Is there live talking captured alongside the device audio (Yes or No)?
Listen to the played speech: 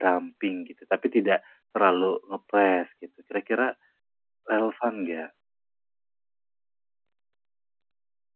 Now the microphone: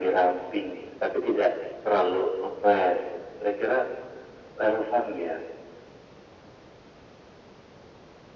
No